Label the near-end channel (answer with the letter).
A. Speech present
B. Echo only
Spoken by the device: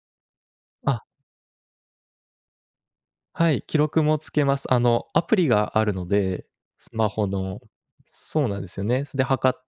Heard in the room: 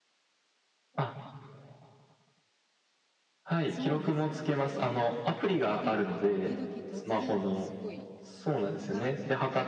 A